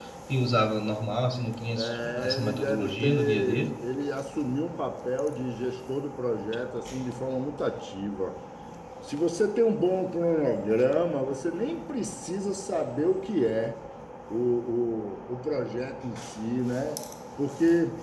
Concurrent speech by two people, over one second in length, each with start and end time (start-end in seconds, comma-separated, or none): 1.8-3.7